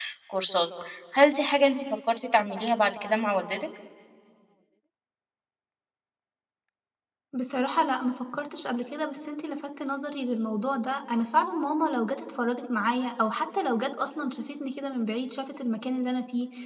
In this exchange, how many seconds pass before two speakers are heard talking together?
none

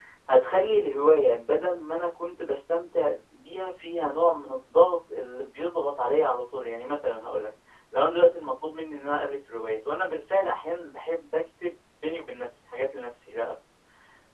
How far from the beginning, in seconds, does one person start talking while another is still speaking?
none

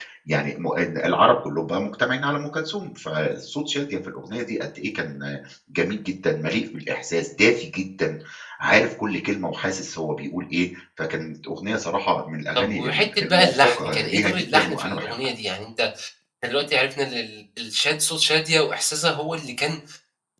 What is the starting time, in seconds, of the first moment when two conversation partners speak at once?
12.6 s

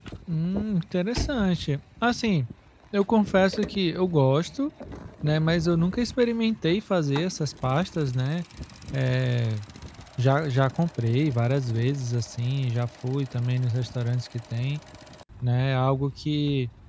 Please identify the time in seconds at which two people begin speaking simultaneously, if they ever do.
none

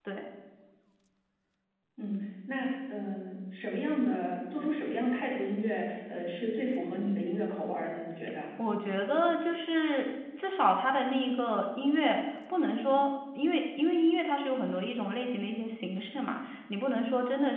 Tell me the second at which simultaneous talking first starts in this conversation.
none

